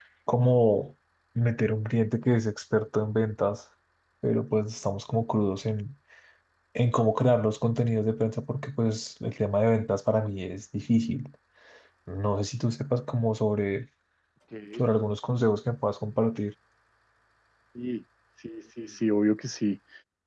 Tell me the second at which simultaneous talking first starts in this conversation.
none

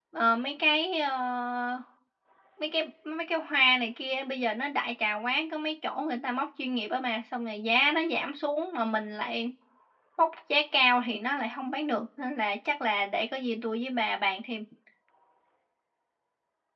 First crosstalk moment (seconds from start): none

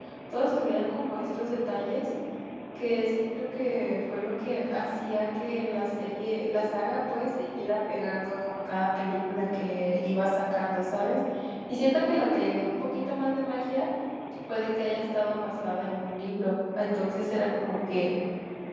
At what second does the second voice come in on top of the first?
none

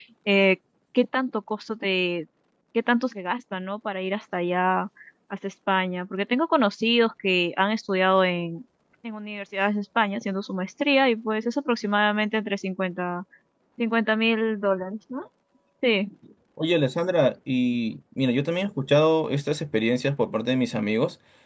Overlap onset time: none

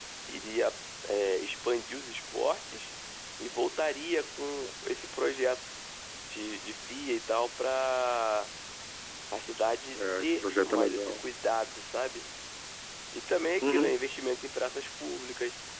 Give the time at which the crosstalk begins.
9.9 s

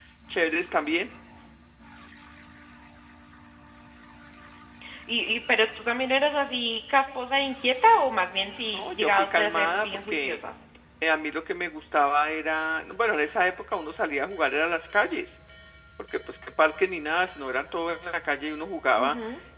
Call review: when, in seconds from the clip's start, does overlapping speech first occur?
8.7 s

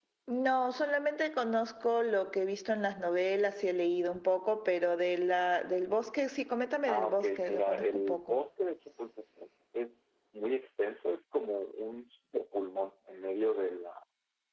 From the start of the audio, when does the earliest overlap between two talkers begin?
6.8 s

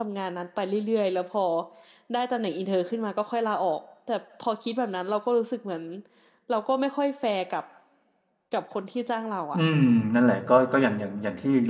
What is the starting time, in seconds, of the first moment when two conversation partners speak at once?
none

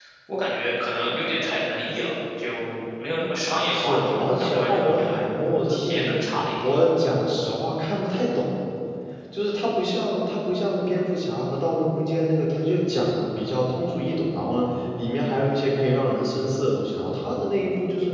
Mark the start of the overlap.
3.7 s

